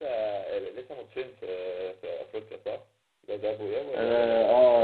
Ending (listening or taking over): taking over